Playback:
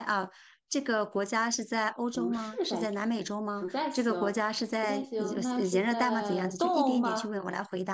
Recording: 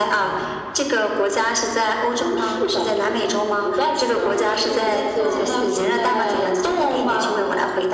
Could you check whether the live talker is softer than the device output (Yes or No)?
Yes